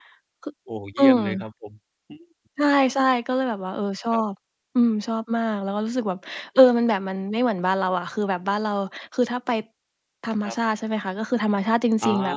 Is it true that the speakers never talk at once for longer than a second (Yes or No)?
Yes